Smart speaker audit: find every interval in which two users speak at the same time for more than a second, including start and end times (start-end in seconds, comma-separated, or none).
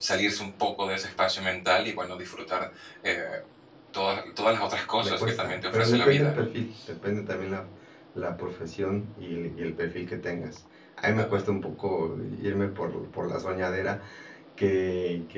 5.0-6.4